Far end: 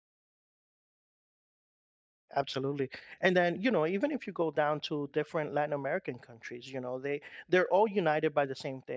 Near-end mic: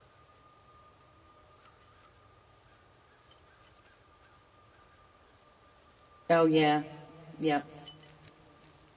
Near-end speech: present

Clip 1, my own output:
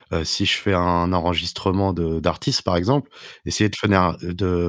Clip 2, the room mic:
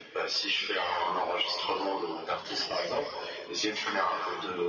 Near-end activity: none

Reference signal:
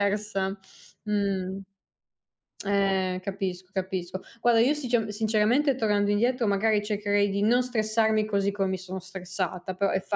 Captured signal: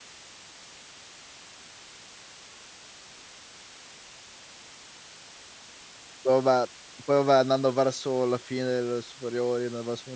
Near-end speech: present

